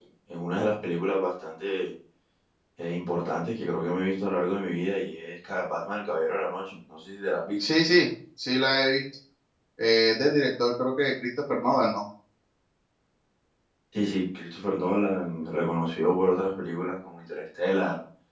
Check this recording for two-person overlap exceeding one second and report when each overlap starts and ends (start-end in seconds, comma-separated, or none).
none